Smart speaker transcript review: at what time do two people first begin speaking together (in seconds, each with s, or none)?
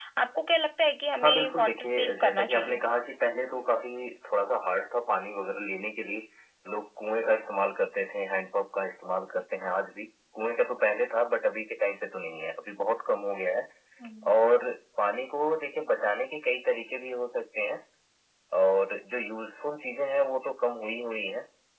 1.2 s